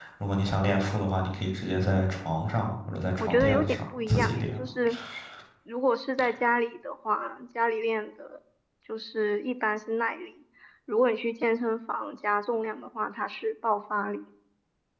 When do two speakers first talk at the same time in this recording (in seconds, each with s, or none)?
3.2 s